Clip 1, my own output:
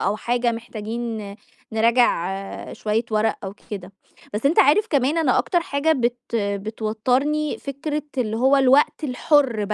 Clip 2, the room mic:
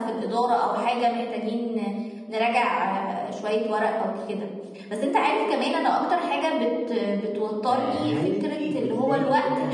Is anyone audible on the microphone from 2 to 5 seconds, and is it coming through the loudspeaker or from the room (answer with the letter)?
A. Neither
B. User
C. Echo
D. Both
C